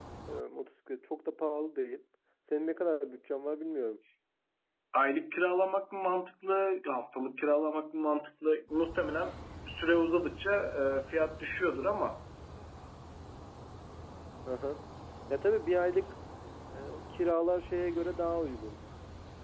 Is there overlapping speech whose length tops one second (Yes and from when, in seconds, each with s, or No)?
No